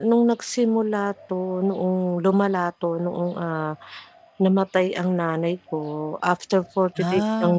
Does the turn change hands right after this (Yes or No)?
No